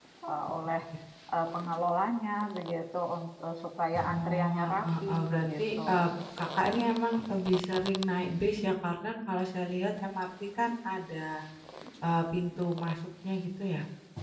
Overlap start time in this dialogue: 4.1 s

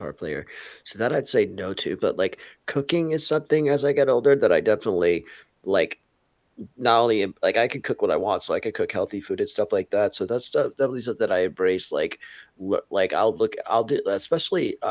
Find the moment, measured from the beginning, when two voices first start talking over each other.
none

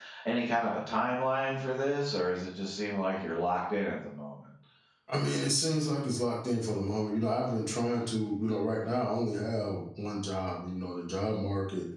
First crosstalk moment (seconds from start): none

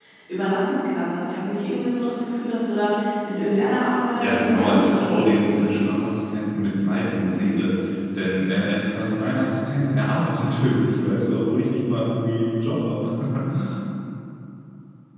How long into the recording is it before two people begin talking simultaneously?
4.2 s

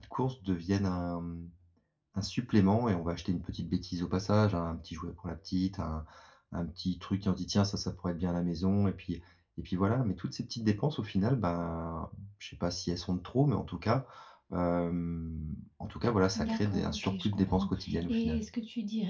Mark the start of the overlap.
16.4 s

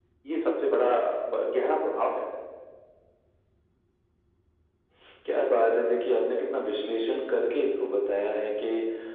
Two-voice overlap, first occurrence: none

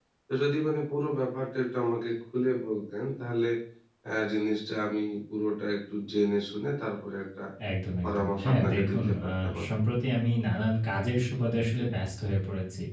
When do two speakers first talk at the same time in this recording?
8.0 s

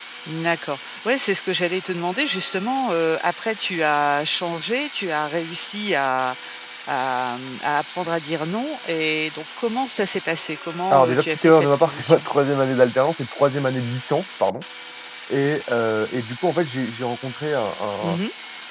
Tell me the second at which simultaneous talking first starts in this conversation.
10.9 s

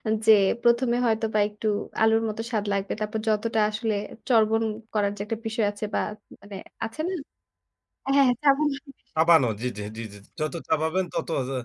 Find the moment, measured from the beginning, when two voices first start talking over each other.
none

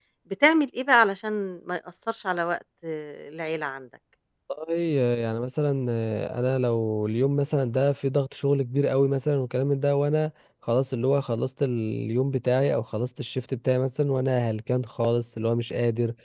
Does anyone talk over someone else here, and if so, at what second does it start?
none

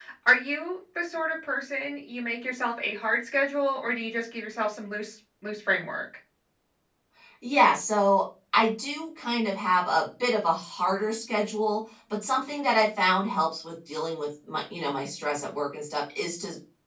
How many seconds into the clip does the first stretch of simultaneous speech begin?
none

